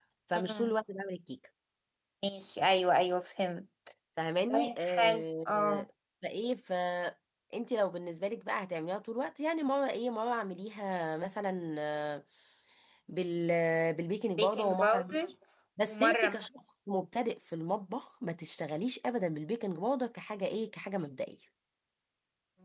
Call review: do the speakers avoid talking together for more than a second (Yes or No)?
No